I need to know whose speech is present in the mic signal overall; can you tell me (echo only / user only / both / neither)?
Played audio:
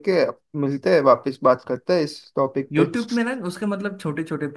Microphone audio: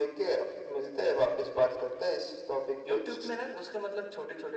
echo only